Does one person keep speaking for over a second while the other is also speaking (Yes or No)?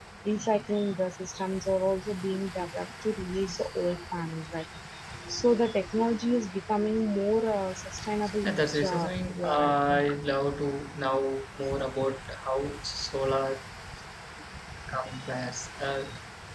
Yes